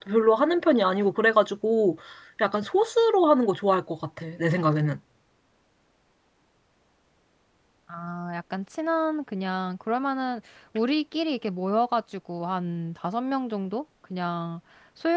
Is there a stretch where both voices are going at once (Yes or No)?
No